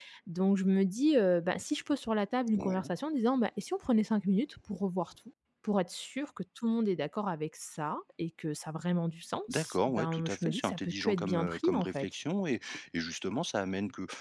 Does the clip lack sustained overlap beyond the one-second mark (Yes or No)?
No